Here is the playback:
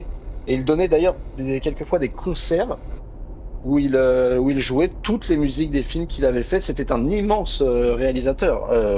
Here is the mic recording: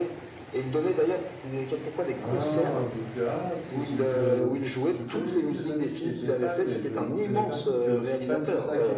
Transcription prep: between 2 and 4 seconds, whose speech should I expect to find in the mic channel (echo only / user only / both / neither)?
both